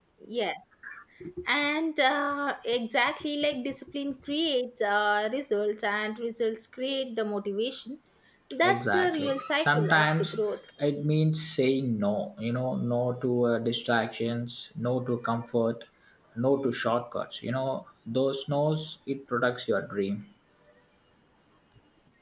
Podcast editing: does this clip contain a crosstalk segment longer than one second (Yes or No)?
Yes